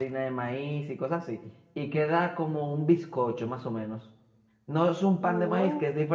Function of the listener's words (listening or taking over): listening